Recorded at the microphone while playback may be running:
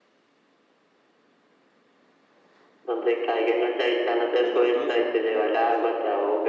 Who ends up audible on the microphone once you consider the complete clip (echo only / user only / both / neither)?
both